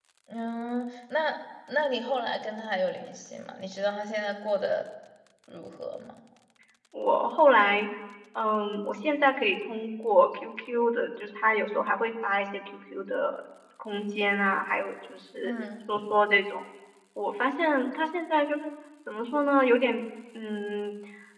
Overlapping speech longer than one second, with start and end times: none

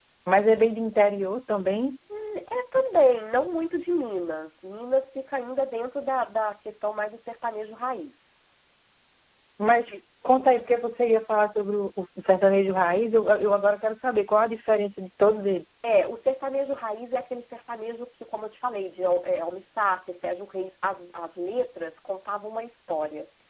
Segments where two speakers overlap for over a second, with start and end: none

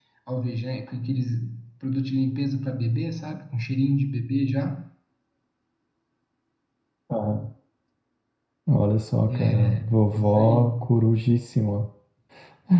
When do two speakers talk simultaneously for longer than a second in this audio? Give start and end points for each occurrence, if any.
9.3-10.7

